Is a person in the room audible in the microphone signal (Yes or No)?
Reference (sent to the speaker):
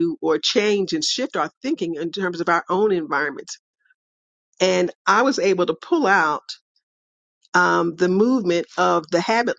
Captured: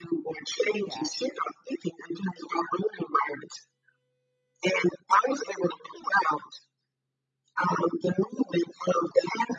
Yes